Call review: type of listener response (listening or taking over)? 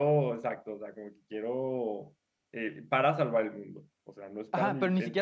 taking over